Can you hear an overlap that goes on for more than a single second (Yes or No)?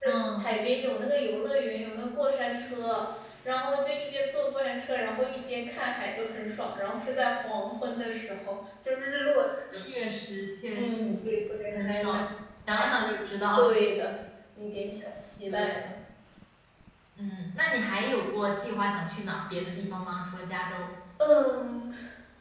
No